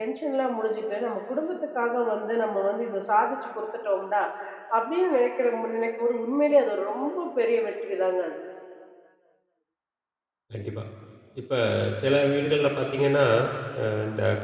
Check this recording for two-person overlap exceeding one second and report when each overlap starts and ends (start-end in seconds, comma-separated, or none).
none